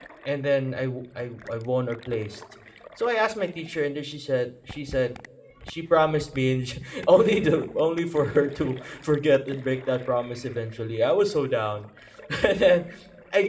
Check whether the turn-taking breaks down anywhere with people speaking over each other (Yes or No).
No